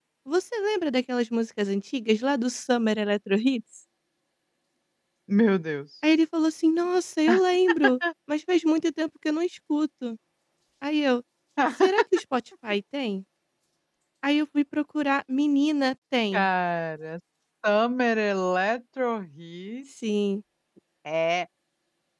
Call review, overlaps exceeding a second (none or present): none